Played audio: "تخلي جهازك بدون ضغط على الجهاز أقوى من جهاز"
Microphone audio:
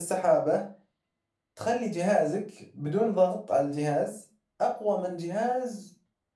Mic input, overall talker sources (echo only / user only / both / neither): echo only